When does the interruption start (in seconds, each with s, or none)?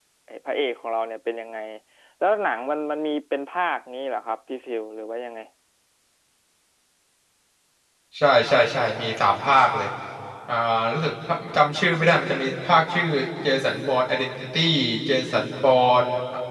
none